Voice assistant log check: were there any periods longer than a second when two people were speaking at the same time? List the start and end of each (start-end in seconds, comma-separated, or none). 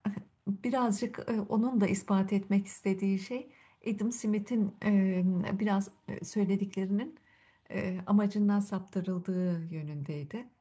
none